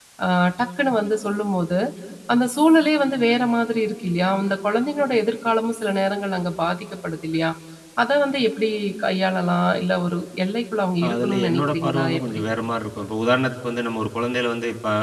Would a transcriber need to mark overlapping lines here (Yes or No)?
Yes